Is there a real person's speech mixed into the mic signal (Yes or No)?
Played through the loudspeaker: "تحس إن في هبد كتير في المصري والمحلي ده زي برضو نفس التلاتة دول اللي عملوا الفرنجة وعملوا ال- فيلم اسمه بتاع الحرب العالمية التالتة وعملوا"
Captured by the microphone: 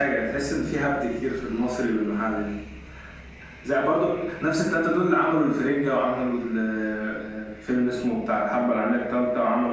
No